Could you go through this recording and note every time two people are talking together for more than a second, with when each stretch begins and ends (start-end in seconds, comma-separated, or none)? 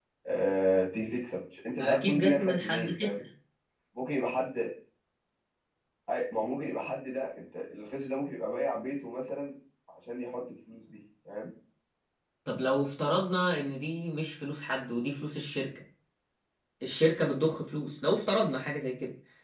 1.8-3.2